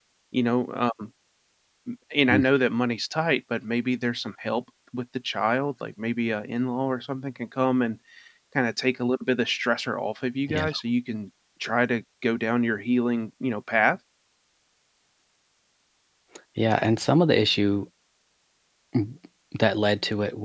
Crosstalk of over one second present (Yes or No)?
No